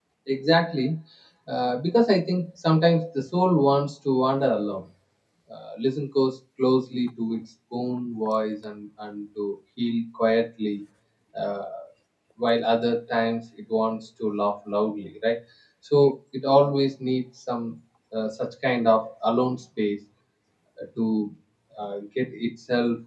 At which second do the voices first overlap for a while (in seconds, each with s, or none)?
none